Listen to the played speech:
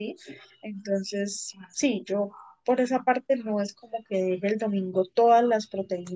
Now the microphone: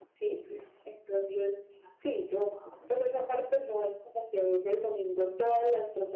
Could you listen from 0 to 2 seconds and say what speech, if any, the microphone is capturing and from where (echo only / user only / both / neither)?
echo only